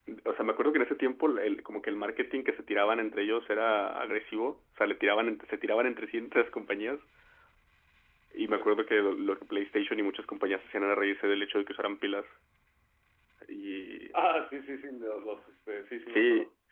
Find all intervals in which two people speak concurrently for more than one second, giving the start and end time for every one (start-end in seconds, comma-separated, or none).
none